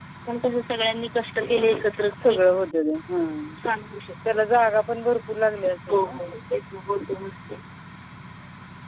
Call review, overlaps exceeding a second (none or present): none